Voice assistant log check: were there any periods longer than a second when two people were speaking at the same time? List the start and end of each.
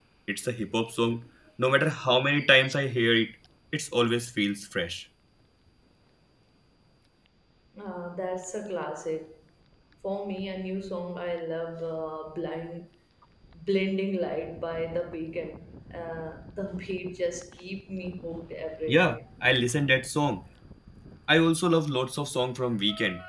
none

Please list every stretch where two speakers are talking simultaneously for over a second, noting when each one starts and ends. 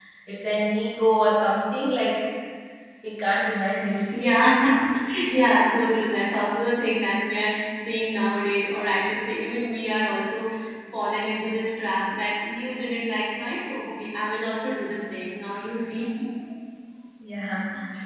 none

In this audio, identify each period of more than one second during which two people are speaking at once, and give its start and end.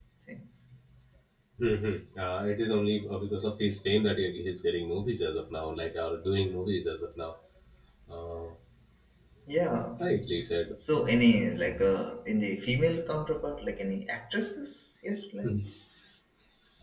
none

